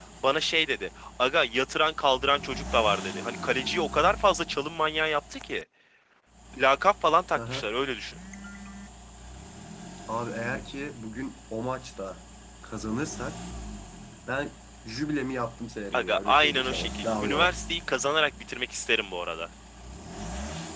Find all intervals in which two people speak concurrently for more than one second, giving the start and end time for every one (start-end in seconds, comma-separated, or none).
15.9-17.5